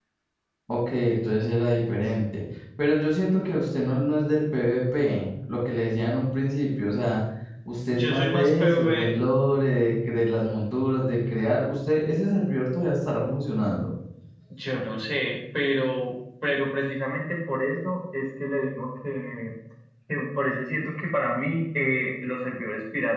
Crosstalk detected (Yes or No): Yes